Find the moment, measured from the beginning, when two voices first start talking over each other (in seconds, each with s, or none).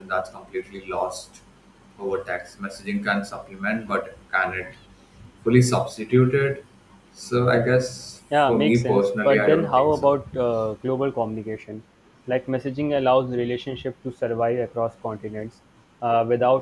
8.3 s